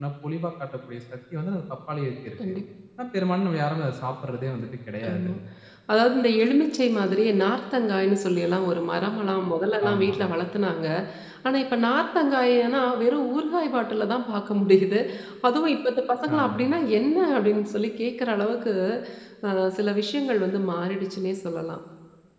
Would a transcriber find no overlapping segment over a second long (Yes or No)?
Yes